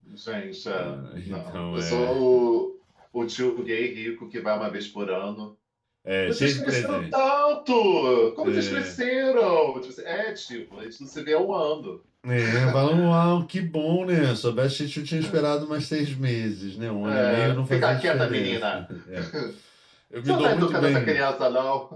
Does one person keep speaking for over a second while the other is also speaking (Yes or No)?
Yes